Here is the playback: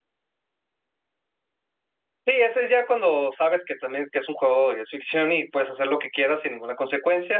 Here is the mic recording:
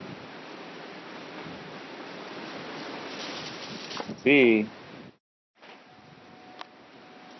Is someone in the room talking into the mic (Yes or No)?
Yes